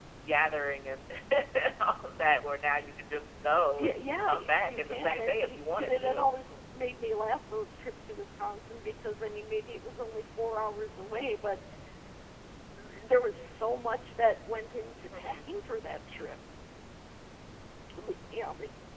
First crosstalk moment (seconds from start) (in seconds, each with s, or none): 3.8 s